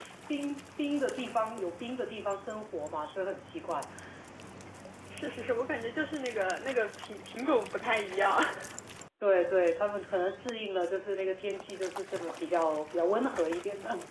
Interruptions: none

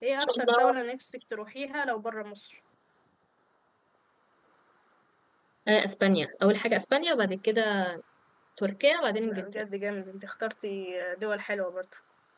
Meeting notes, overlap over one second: none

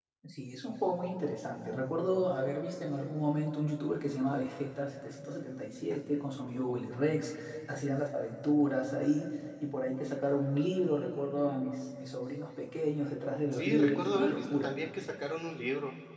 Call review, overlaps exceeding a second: present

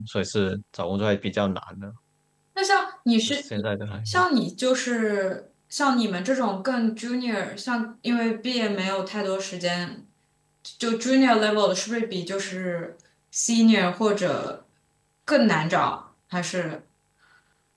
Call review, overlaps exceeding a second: none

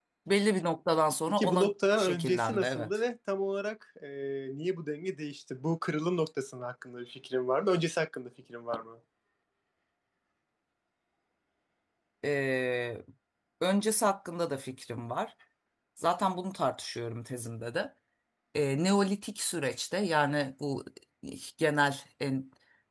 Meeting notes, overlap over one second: present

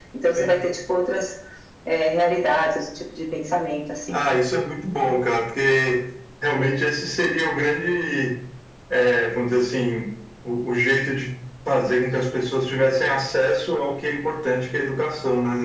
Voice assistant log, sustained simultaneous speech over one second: none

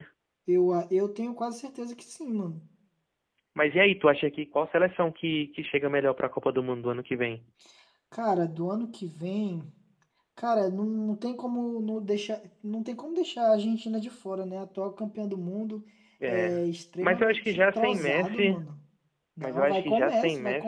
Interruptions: present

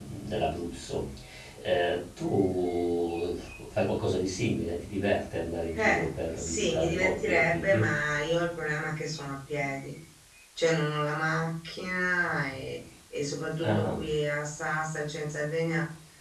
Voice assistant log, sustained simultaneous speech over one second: present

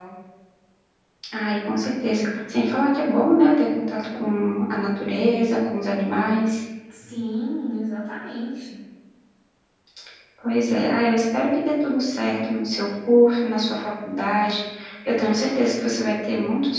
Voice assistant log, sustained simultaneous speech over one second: none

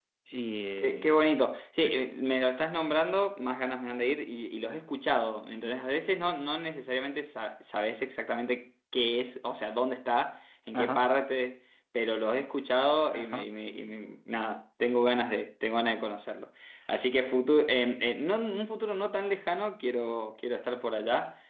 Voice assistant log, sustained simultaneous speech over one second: none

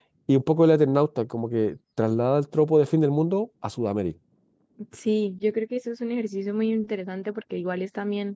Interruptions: none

